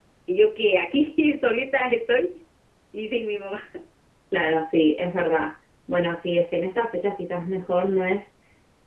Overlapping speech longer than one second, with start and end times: none

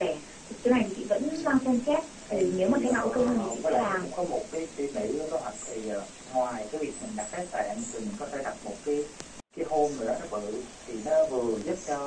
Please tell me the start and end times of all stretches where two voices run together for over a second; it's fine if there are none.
2.3-4.1

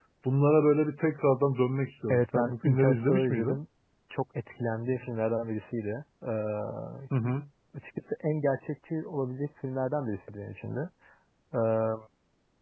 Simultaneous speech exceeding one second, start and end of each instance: 2.1-3.6

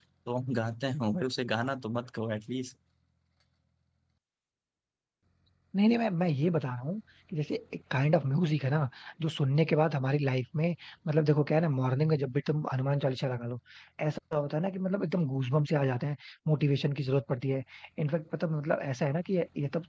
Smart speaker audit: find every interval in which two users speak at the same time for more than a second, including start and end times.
none

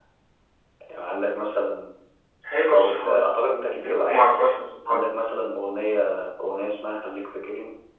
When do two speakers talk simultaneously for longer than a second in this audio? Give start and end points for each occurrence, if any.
none

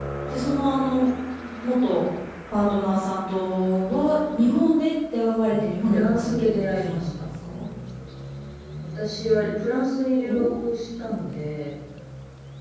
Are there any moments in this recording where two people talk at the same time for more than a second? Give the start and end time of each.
5.5-7.3

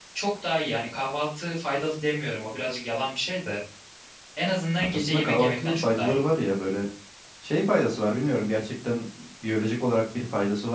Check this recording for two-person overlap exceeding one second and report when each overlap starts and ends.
4.9-6.2

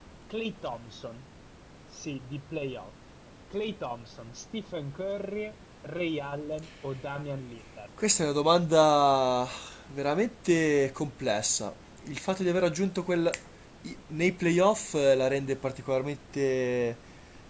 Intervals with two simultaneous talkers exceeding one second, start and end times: none

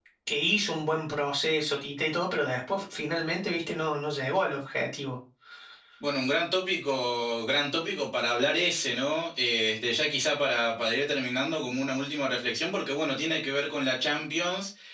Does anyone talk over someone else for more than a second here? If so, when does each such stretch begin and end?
none

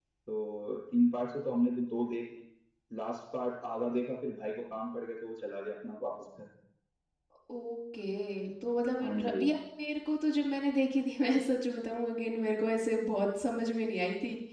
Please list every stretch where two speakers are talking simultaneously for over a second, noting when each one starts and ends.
none

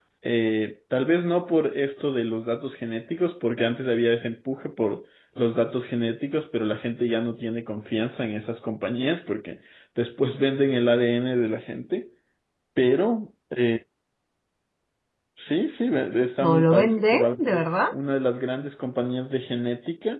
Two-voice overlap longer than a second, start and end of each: 16.4-17.7

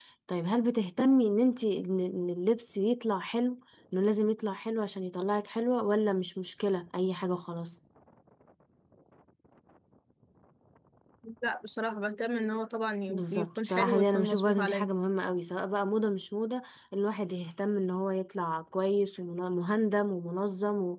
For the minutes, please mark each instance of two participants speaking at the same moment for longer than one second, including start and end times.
13.1-14.9

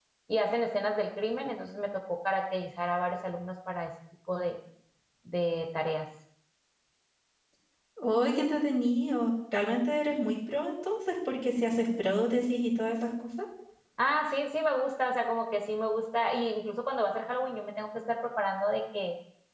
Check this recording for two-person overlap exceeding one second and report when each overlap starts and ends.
none

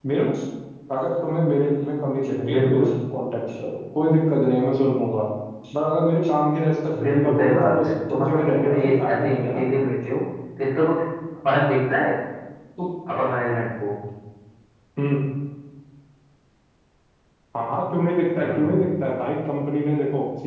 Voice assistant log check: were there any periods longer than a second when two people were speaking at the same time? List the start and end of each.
7.0-9.6

